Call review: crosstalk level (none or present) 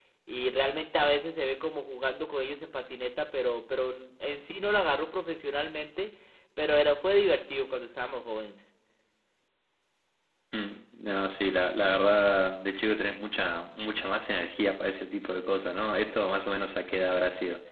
none